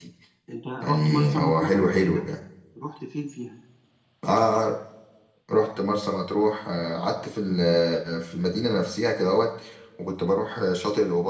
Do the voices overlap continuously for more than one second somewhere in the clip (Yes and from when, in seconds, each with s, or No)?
Yes, from 0.8 s